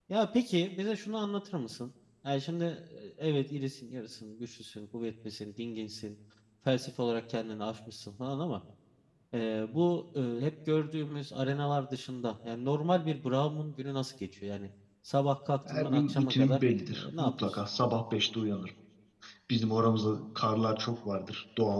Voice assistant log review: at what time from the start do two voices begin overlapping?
15.7 s

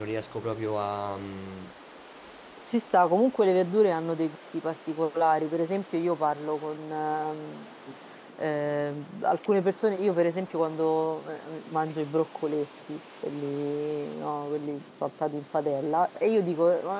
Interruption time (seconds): none

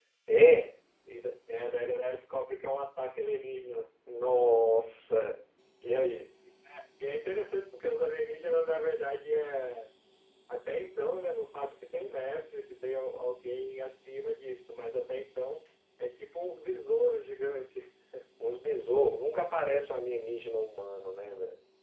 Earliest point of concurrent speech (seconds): none

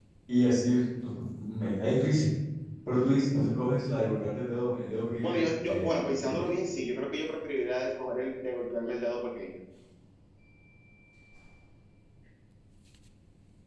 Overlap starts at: 5.2 s

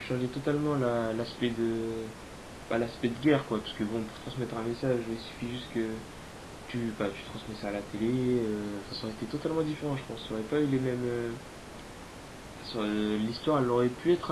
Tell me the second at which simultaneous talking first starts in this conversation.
none

